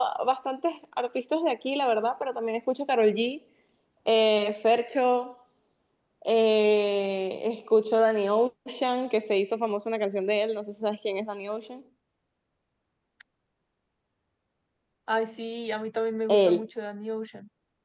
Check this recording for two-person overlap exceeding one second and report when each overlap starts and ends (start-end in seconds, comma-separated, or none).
none